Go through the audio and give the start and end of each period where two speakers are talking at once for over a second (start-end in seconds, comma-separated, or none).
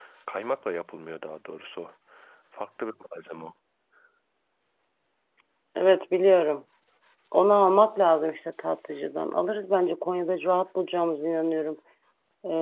none